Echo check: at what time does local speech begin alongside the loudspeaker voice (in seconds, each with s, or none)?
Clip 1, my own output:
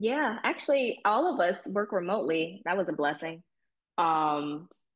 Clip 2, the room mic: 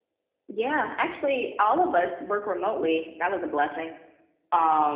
none